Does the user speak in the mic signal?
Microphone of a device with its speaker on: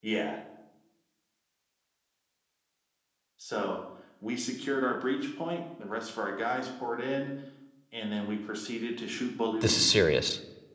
Yes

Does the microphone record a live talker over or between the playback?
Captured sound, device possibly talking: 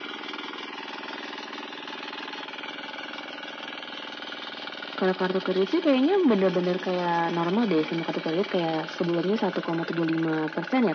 No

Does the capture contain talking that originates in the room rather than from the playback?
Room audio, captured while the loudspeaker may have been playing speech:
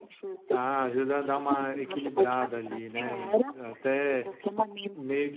Yes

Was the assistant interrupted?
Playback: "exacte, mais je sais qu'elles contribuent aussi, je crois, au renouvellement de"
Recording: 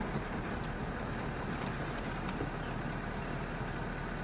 No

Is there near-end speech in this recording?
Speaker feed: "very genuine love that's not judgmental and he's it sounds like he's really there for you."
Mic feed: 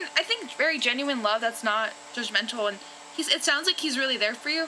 No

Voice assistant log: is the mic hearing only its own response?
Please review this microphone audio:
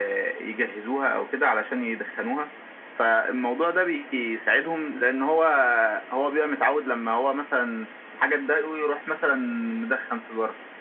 Yes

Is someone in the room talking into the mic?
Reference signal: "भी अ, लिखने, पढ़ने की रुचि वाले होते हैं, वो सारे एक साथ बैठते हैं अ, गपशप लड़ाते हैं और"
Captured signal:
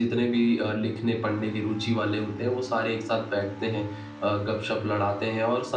No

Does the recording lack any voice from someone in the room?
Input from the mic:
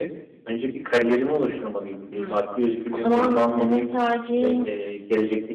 No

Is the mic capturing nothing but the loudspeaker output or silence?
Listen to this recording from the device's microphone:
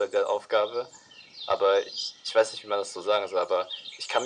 Yes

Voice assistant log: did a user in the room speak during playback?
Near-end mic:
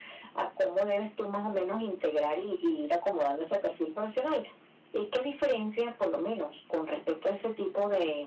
No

